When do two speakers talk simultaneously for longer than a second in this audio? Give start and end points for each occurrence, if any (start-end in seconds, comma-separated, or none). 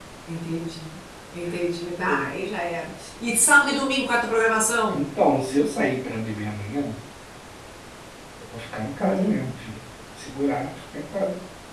none